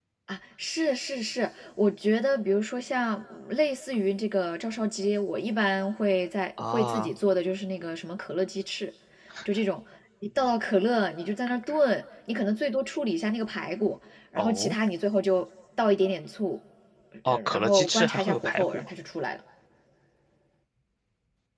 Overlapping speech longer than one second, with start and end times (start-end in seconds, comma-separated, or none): 17.3-18.8